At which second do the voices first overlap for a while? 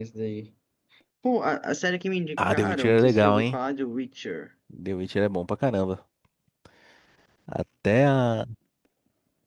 2 s

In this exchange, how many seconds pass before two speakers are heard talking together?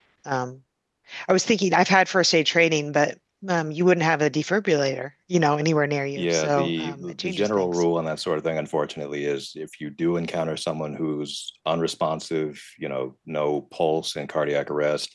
6 s

